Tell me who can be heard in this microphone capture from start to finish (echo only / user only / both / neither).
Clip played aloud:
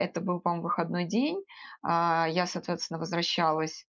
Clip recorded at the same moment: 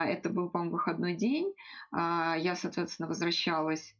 echo only